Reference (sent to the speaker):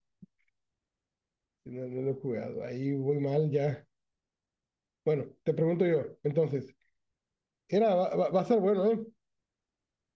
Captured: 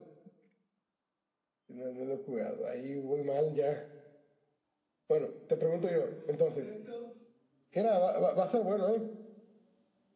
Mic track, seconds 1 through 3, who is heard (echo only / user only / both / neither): echo only